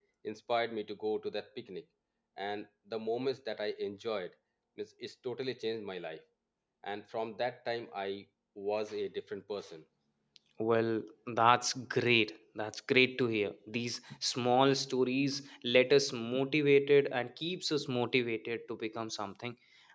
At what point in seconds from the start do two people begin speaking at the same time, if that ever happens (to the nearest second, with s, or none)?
none